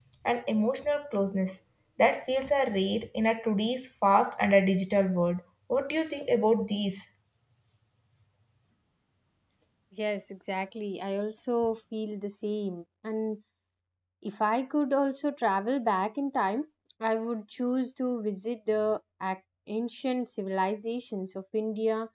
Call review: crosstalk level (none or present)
none